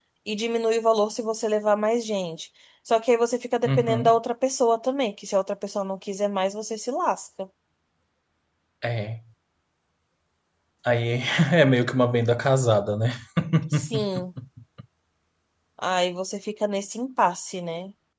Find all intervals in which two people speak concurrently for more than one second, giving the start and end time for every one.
none

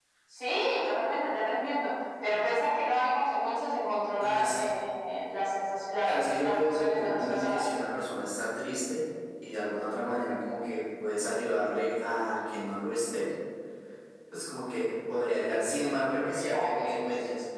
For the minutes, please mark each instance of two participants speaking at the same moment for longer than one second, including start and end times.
6.0-7.6

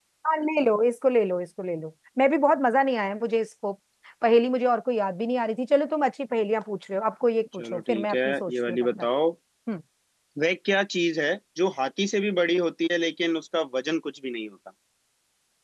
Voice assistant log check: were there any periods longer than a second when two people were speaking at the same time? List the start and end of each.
7.5-9.1

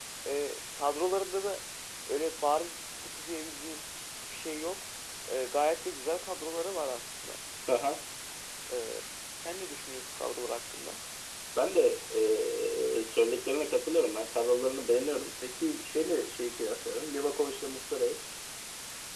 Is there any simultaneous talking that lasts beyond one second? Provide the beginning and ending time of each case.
none

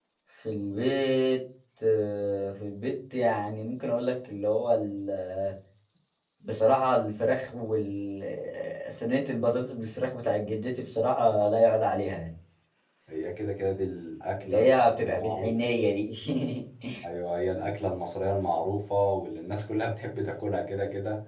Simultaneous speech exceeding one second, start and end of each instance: 14.4-15.7

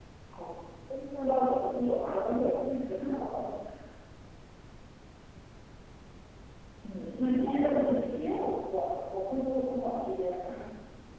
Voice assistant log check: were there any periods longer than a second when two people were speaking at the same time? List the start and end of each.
7.1-8.5

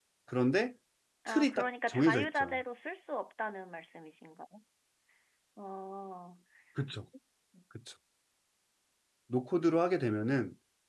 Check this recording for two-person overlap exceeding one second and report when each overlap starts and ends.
1.3-2.6

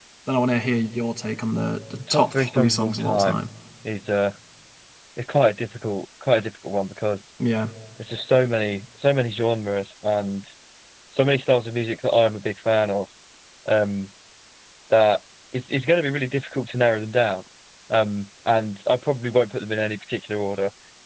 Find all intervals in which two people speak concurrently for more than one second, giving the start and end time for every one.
2.1-3.4

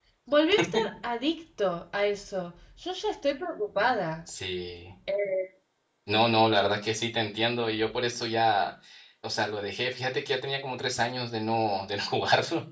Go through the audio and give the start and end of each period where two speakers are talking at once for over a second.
none

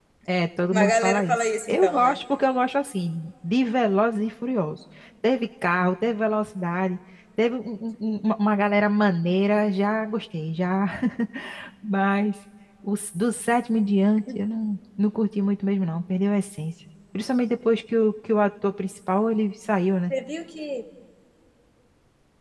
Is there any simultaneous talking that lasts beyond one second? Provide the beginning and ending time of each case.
0.7-2.2

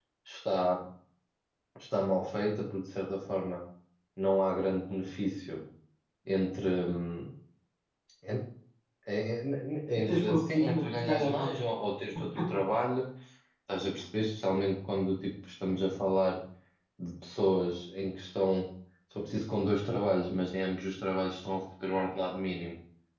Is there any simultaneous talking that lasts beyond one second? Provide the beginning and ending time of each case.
10.0-11.5

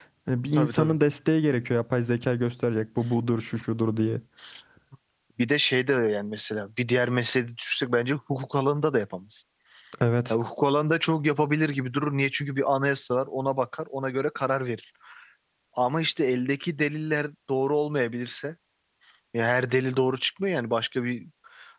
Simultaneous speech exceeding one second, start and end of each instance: none

